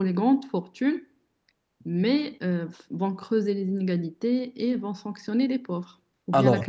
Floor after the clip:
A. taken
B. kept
A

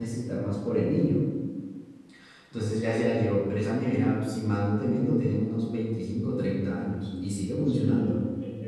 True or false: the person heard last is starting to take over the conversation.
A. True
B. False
A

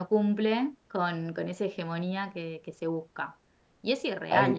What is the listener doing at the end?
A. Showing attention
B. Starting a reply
B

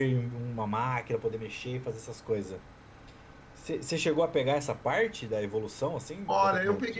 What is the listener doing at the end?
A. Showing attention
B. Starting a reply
B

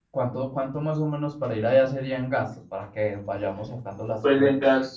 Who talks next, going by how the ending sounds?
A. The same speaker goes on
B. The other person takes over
B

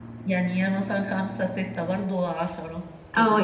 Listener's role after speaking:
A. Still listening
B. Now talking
B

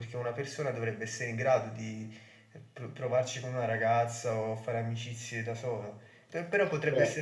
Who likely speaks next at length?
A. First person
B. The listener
A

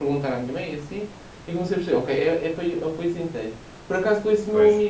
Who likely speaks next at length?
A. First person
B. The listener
A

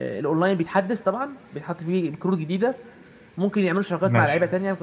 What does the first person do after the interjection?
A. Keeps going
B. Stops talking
A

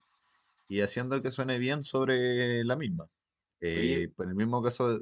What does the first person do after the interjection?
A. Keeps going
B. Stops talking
A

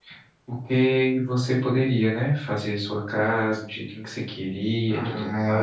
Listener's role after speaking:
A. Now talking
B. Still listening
A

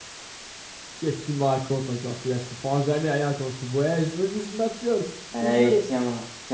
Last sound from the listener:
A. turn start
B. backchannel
A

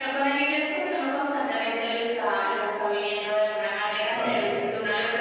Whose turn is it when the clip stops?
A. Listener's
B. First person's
B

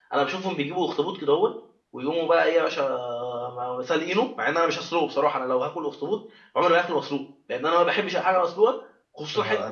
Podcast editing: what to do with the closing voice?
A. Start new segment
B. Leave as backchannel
A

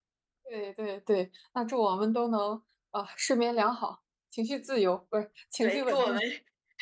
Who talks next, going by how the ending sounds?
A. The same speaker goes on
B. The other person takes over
B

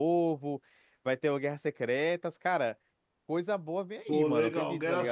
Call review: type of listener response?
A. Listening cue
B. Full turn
B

